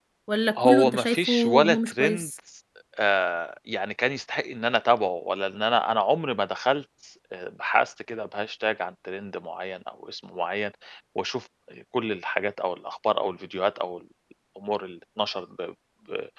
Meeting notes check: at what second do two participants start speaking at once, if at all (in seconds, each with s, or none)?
0.6 s